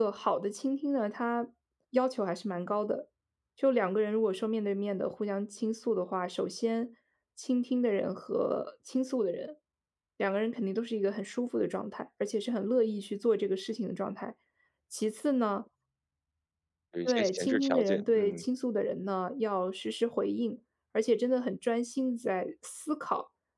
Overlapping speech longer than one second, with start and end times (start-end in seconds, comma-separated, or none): 17.0-18.4